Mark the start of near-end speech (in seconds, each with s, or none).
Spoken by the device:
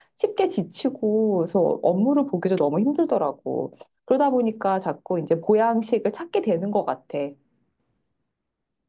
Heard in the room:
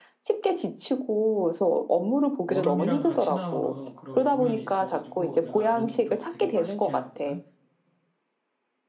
2.5 s